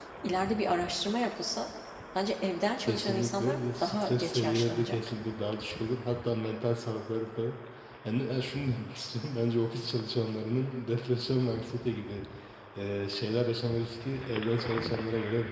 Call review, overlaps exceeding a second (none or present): present